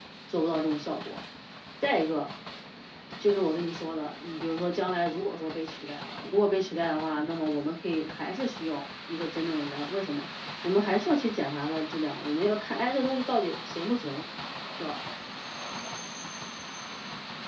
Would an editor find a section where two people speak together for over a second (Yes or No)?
No